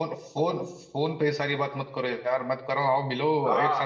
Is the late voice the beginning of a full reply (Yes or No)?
Yes